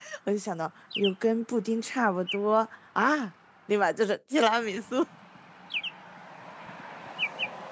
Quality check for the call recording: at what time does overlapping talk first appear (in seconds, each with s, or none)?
none